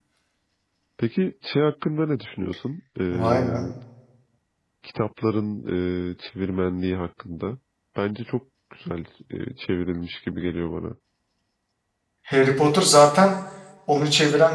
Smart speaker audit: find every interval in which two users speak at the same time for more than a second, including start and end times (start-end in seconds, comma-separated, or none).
none